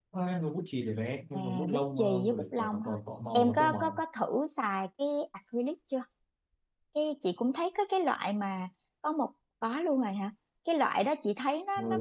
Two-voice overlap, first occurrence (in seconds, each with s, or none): 1.3 s